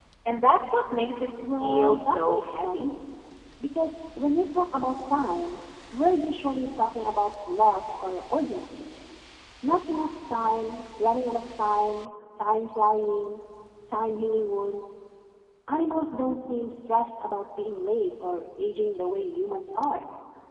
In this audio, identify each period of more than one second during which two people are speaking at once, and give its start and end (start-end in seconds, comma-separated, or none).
1.6-2.9